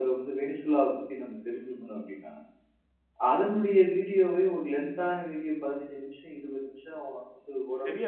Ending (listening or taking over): taking over